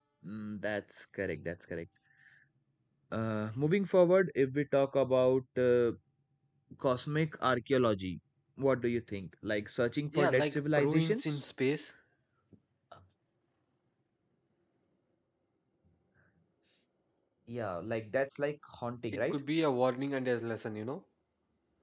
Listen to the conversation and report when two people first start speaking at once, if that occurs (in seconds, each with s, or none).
10.1 s